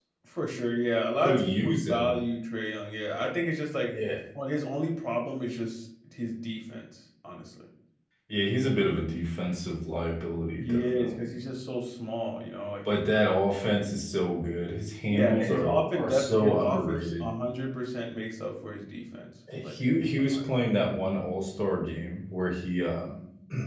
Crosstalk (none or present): present